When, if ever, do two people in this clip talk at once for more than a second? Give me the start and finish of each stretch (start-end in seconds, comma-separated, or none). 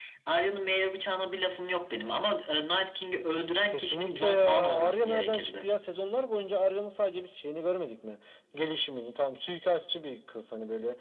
3.7-5.7